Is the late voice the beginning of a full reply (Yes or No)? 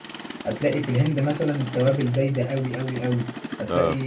No